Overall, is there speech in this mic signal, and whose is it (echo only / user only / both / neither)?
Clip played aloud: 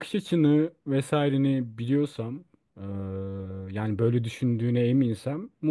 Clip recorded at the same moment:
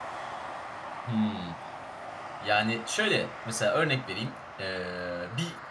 user only